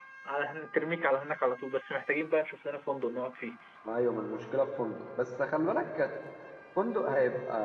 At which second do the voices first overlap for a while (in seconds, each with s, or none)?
none